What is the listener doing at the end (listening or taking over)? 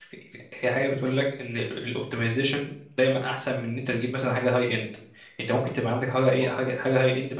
listening